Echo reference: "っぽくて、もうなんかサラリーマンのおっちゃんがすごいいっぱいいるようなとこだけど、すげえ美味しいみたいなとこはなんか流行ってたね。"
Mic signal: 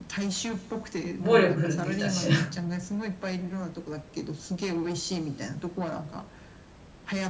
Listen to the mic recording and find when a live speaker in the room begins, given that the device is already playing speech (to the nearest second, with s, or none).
1 s